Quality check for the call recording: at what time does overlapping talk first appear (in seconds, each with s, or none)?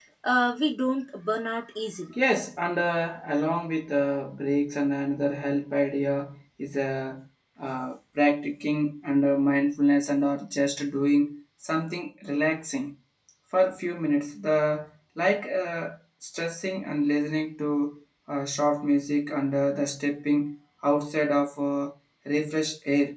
none